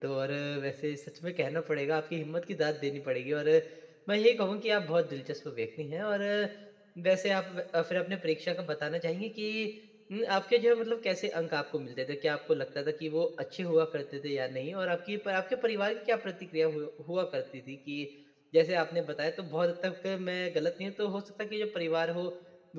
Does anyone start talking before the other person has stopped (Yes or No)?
No